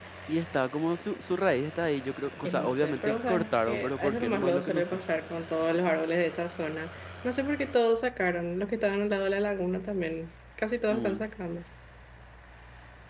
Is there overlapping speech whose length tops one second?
Yes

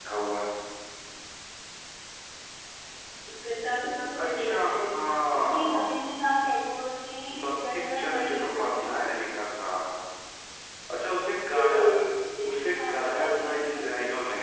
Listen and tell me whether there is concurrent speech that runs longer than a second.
Yes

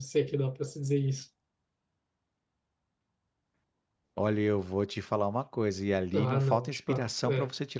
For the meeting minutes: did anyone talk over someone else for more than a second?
Yes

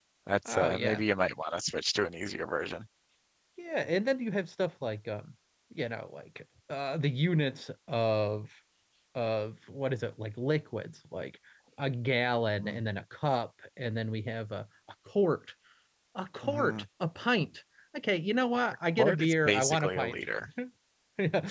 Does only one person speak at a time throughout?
No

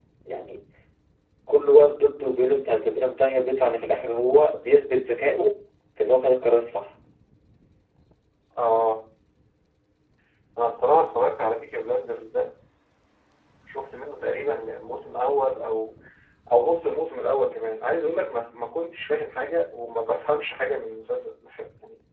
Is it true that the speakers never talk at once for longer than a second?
Yes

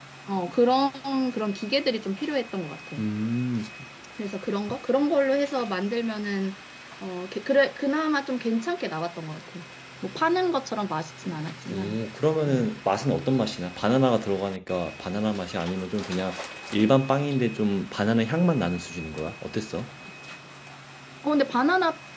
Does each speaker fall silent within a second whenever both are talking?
Yes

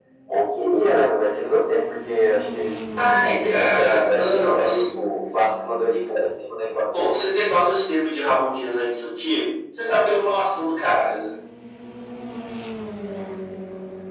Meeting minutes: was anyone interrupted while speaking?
Yes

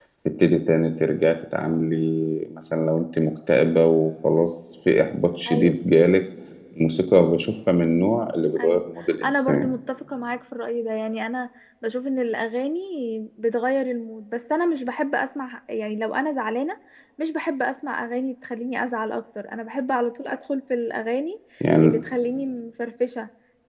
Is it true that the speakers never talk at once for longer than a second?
Yes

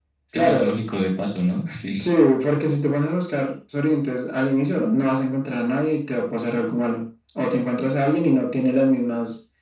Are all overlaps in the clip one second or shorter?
Yes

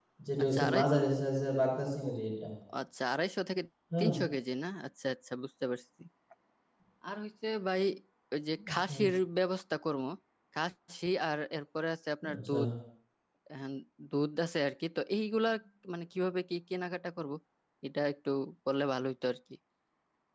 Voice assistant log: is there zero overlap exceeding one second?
Yes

